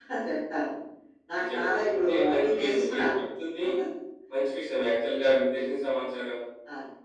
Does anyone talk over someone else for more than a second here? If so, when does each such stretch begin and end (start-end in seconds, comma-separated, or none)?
1.5-3.1